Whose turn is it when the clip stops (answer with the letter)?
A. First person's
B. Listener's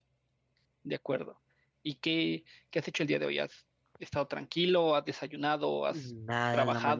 B